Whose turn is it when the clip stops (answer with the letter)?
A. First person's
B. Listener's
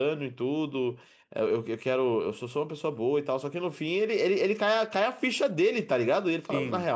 A